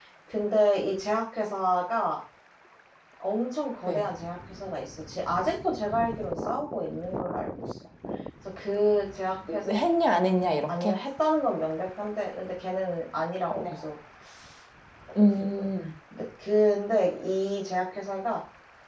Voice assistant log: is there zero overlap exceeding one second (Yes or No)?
Yes